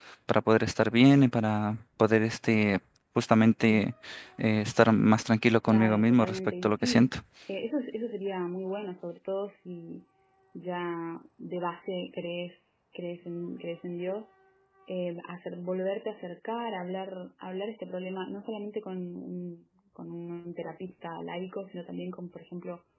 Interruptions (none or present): present